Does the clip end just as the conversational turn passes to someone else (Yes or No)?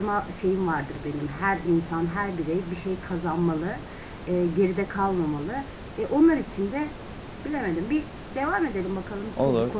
Yes